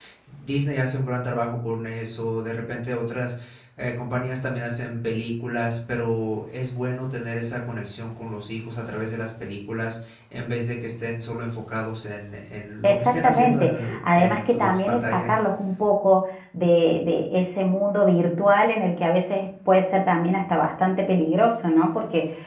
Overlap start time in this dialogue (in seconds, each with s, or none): 12.8 s